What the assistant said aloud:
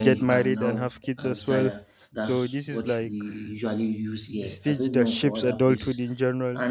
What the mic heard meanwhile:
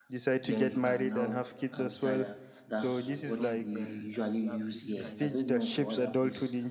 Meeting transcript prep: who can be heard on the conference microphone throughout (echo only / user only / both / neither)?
both